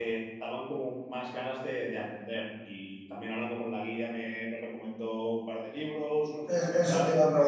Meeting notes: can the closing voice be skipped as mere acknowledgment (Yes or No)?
No